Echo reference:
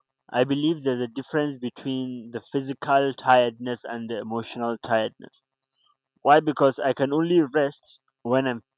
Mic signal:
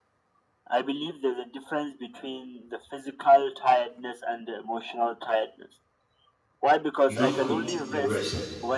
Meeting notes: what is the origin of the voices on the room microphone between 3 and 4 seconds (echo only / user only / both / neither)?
echo only